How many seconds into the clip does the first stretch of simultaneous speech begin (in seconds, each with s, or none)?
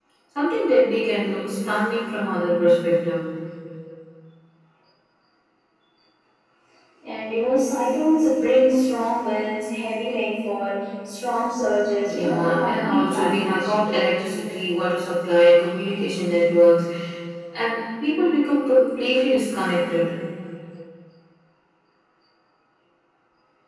12.0 s